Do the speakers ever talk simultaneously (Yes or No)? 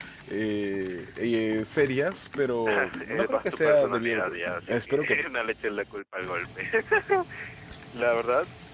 Yes